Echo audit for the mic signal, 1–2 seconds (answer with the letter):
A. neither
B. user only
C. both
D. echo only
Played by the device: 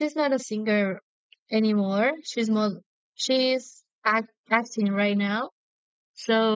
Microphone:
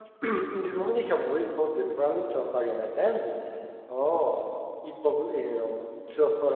B